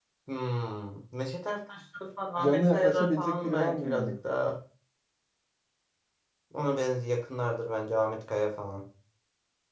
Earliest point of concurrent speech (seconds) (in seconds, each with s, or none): 2.4 s